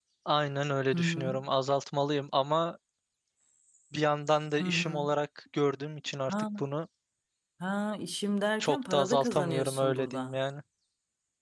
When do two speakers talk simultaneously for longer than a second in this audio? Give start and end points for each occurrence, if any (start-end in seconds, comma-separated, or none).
8.6-10.4